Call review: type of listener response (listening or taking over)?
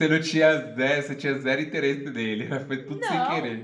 taking over